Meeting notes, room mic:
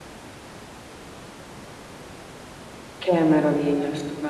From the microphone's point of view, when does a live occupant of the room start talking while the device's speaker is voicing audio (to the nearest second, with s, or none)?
3 s